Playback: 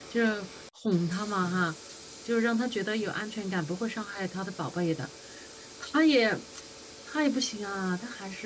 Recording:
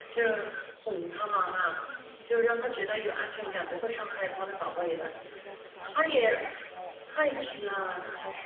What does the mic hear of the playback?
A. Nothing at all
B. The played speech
B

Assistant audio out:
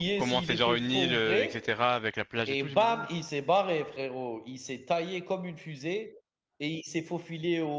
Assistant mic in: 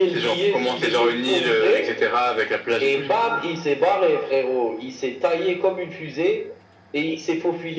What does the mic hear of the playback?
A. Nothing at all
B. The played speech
B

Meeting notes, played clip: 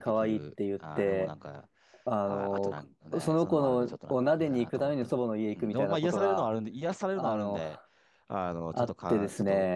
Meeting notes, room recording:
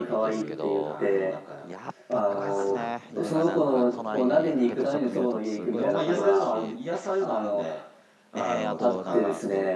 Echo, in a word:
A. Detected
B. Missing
A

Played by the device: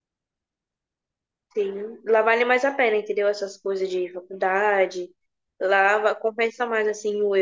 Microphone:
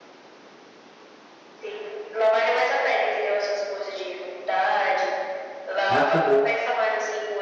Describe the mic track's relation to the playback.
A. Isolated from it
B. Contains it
B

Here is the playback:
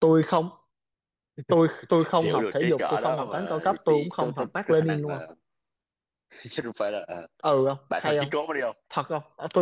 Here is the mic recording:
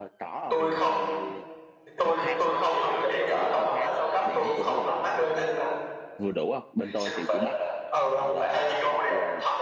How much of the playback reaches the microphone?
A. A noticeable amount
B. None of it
A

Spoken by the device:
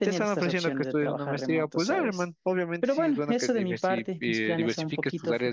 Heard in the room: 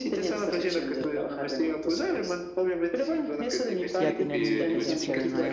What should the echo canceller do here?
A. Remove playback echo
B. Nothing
A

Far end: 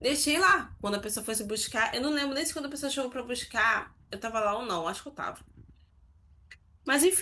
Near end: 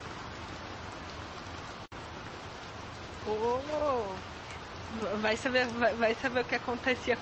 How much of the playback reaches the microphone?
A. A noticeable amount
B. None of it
B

